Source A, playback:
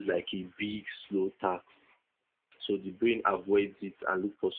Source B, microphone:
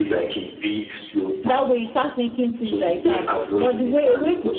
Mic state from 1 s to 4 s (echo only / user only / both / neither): both